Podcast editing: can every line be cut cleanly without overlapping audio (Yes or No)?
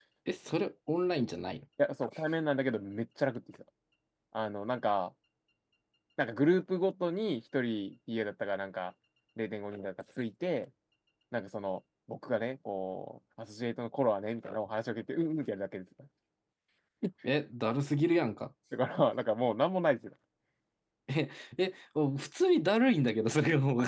Yes